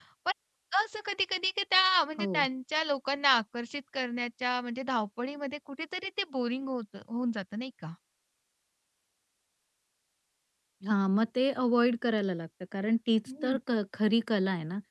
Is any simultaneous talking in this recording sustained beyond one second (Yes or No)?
No